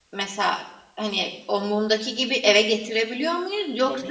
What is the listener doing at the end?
taking over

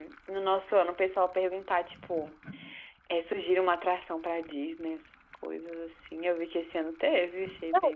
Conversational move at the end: taking over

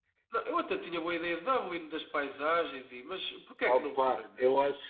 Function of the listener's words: taking over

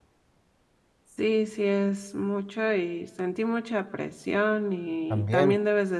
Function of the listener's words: listening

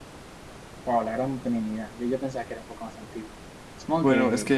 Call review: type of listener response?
taking over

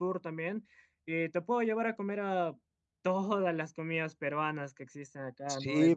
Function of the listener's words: taking over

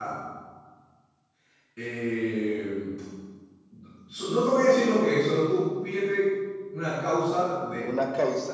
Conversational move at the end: listening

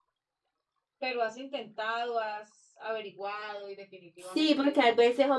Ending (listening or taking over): taking over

